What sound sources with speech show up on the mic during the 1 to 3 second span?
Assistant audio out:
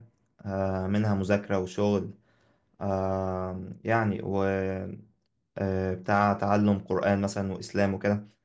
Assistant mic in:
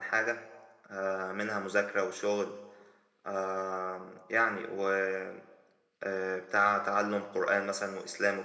echo only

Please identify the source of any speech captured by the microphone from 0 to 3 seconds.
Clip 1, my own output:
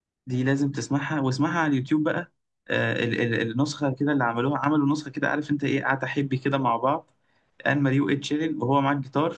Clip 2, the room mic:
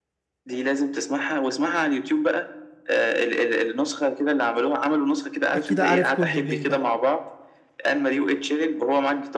echo only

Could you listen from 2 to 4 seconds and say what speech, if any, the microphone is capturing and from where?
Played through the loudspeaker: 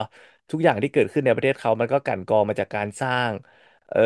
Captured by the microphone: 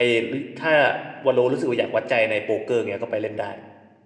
user only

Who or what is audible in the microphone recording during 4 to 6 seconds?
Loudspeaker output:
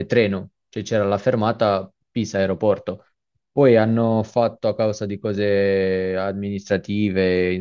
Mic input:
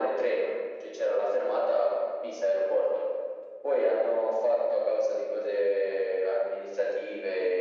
echo only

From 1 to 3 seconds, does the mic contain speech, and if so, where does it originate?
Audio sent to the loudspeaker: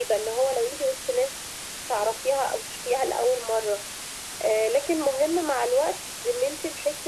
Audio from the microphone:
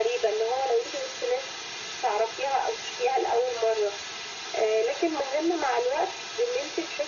echo only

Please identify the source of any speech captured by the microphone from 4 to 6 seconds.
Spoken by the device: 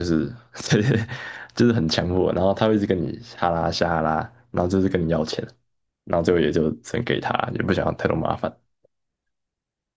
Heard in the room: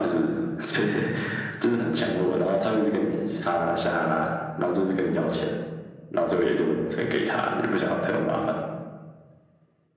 echo only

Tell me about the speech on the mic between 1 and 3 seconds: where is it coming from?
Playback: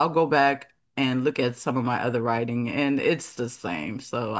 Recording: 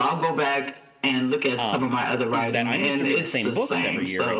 both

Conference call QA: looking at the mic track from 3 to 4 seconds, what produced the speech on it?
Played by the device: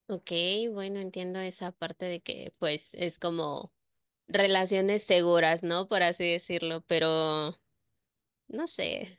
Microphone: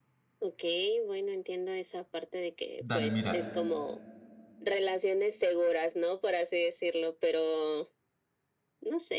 both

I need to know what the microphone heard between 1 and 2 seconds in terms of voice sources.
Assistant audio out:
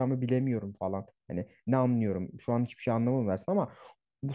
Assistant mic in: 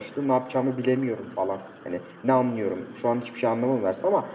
echo only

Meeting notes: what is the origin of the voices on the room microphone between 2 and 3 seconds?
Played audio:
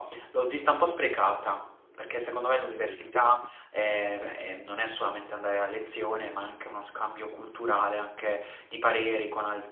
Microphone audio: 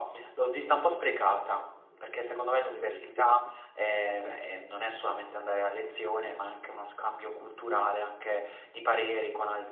echo only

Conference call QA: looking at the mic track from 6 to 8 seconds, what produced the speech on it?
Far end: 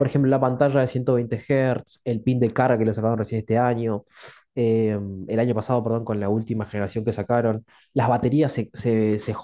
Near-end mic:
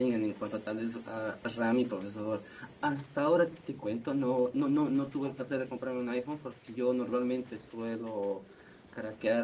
user only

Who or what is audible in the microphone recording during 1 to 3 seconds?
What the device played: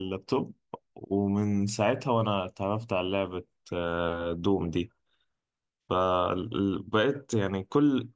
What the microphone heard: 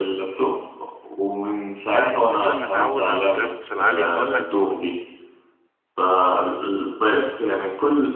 both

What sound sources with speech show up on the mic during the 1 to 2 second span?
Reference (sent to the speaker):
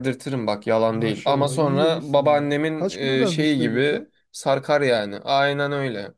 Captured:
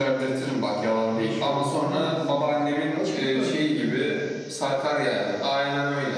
echo only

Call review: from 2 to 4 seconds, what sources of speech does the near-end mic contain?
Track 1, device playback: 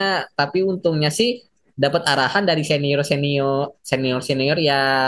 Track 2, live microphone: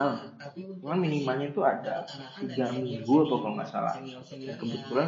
both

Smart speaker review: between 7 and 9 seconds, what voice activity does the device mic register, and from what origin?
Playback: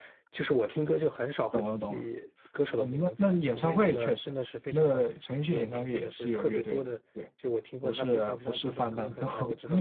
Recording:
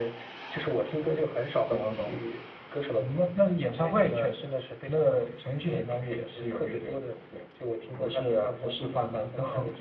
echo only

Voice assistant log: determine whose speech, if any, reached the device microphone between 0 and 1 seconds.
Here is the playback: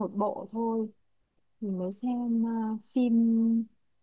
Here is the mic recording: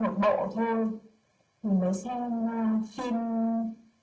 echo only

